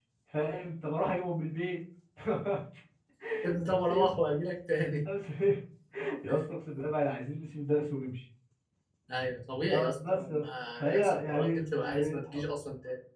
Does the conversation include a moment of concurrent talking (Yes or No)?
Yes